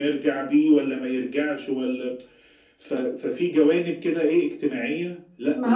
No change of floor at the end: No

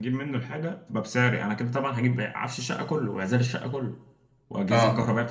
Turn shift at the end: No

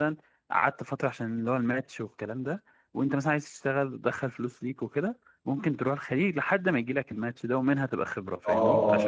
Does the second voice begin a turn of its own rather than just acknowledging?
Yes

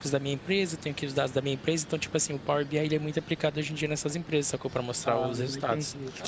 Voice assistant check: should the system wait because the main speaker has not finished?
No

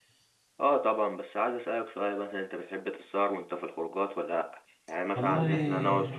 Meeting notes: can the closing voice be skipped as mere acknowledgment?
Yes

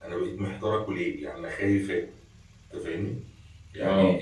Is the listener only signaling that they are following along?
Yes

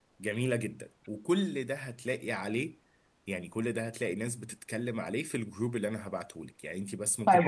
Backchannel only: No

